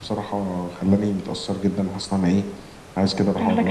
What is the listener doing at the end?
listening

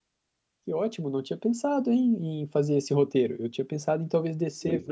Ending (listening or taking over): listening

